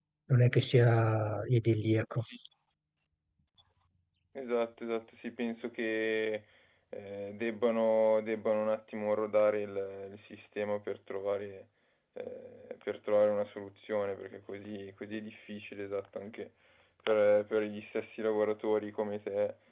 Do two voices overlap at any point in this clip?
No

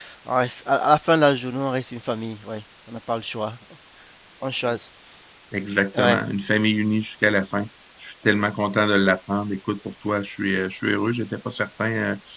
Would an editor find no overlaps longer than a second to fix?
Yes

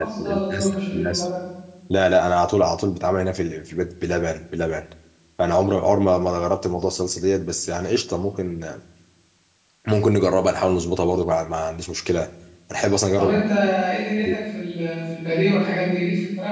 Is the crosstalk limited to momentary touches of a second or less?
No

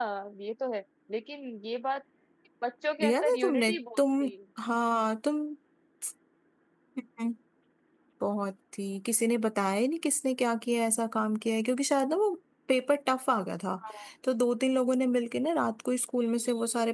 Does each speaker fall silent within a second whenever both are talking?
No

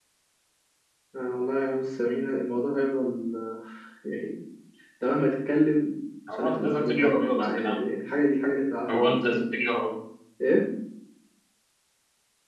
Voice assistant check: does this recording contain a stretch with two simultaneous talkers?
Yes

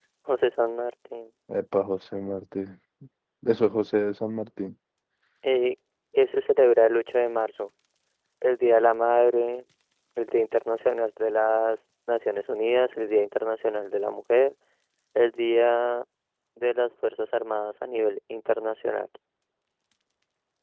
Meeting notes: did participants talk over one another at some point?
No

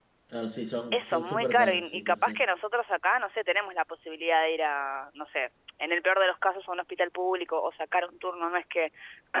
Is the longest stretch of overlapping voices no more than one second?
No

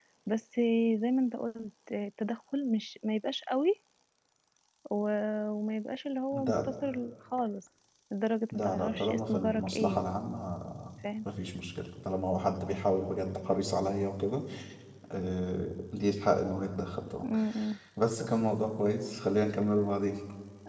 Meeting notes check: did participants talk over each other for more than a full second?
Yes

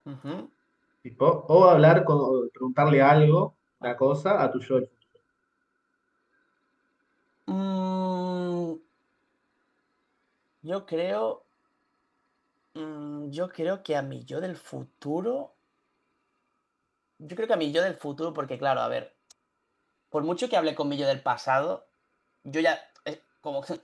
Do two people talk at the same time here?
No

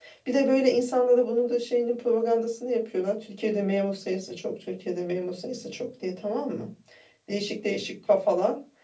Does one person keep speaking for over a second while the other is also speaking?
No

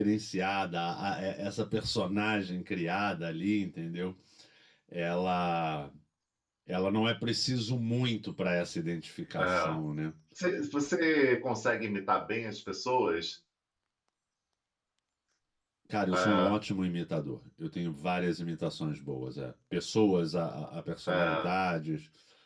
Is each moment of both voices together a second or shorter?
Yes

